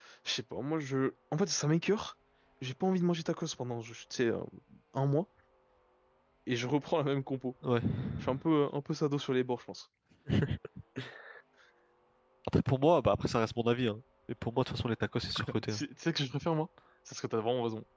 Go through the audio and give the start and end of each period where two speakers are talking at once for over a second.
none

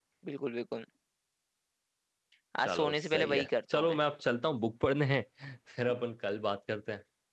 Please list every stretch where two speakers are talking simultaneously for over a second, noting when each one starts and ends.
2.6-4.0

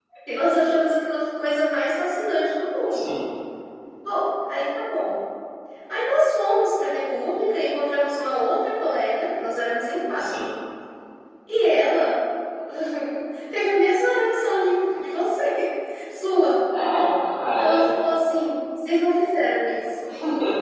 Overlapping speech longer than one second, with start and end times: none

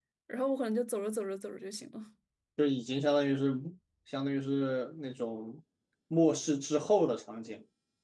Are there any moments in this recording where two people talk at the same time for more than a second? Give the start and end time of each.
none

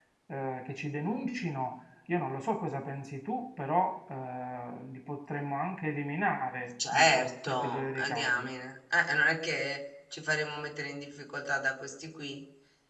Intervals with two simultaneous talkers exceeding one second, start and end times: 6.9-8.5

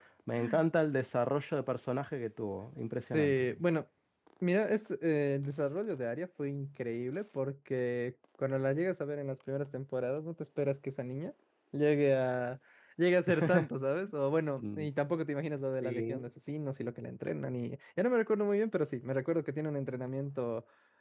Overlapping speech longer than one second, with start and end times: none

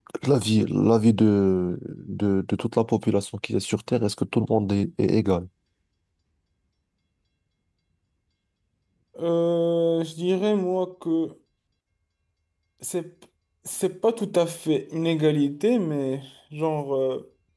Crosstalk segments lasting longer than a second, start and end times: none

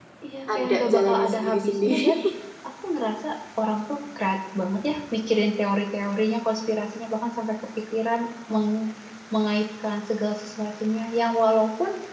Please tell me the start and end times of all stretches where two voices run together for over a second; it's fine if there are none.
0.6-2.1

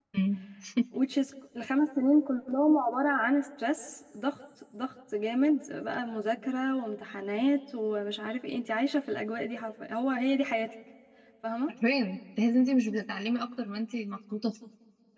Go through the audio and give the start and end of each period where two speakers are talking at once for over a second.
none

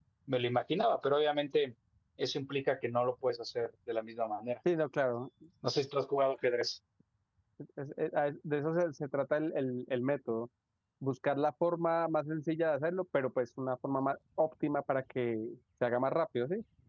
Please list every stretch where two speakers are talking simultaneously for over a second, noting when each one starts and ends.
none

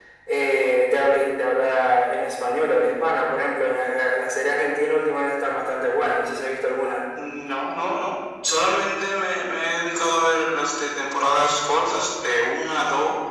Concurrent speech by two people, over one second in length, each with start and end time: none

